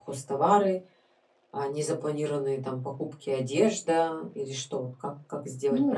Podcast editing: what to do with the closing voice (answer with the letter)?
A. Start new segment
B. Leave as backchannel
A